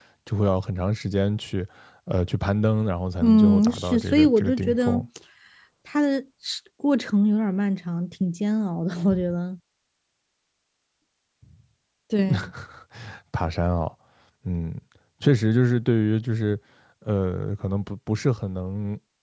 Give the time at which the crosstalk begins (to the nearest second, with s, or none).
3 s